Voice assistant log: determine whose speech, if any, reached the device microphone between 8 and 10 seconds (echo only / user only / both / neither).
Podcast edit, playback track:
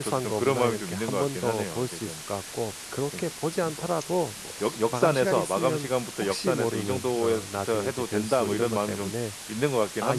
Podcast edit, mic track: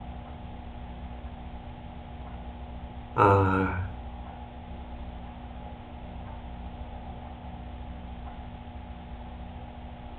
neither